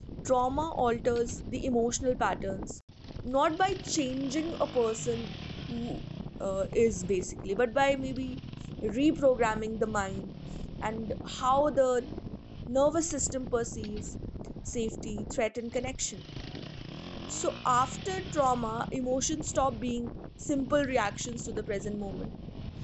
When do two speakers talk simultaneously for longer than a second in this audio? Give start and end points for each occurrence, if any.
none

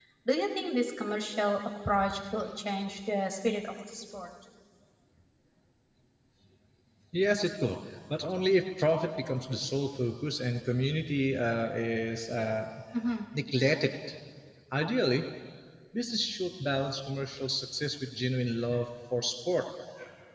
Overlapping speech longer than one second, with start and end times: none

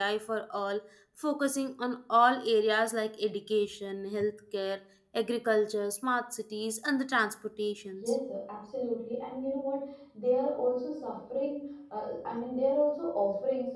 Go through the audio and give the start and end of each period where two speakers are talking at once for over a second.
none

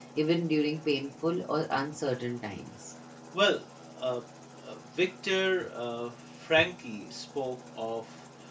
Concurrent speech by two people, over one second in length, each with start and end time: none

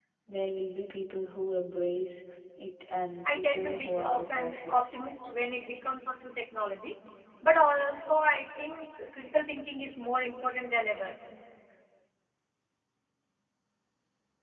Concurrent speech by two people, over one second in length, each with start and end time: 3.2-5.1

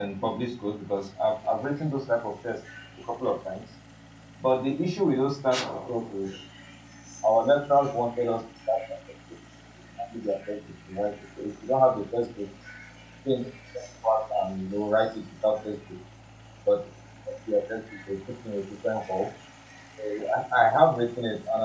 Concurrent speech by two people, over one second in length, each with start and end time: none

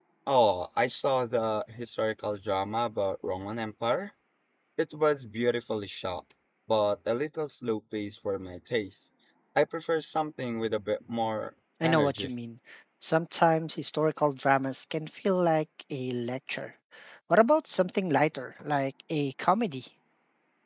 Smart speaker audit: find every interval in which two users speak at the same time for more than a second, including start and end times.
none

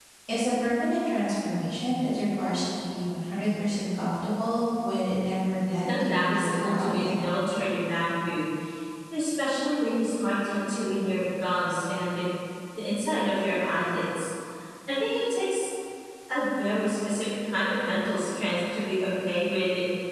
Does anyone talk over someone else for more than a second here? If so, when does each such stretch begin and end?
5.8-7.2

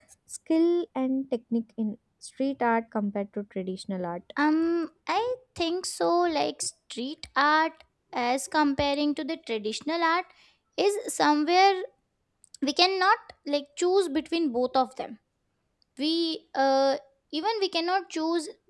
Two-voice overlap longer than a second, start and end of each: none

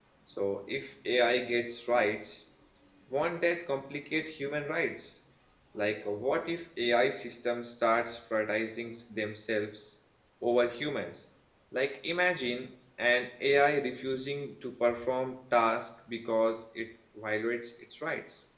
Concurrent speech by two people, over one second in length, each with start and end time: none

